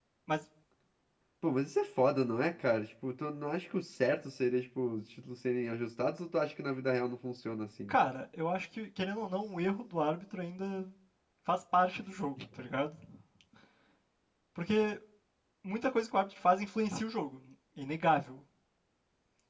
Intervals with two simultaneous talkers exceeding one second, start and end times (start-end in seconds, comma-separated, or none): none